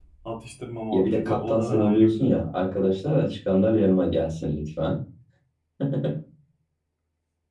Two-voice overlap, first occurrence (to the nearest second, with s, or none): 1 s